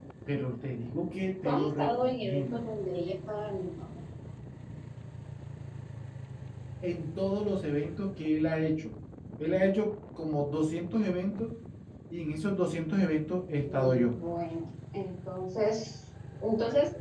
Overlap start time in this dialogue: 1 s

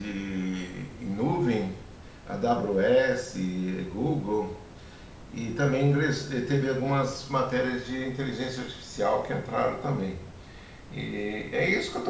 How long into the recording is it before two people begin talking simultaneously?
none

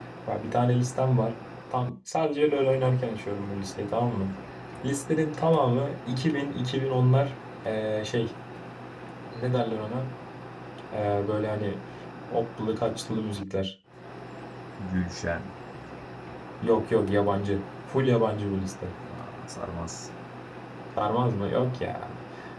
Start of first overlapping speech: none

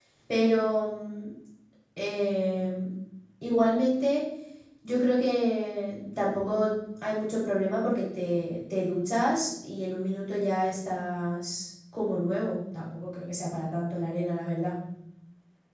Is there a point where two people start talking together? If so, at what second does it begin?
none

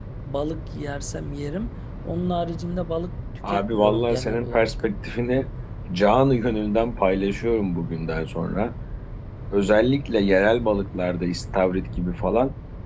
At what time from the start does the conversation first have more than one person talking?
3 s

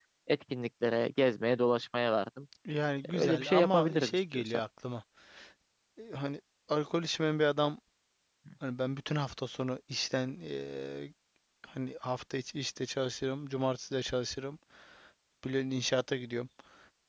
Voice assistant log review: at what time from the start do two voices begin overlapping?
3 s

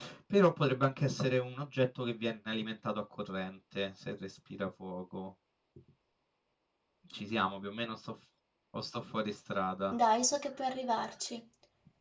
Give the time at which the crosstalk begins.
none

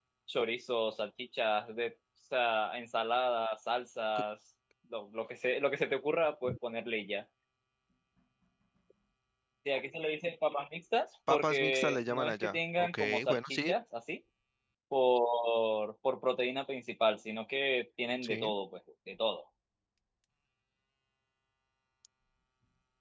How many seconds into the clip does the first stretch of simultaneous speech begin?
11 s

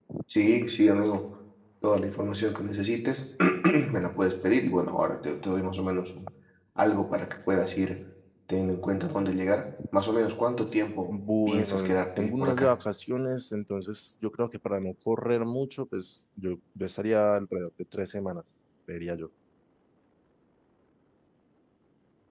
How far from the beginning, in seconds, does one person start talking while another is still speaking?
11 s

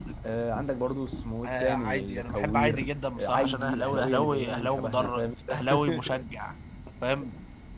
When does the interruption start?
1 s

